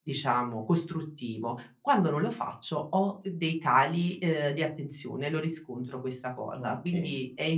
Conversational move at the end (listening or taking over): listening